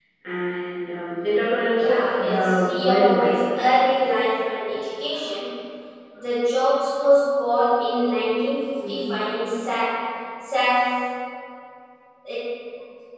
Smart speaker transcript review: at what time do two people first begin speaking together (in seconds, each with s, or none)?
1.8 s